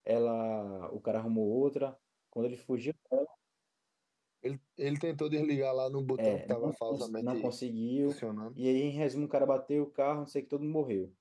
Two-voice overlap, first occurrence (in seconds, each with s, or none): 6.2 s